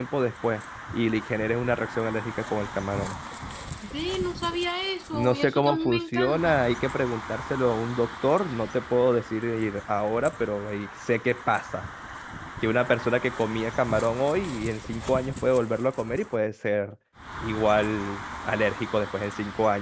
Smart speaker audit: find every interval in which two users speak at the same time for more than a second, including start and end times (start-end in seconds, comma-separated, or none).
5.1-6.6